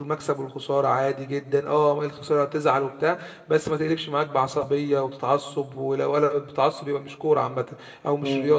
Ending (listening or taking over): taking over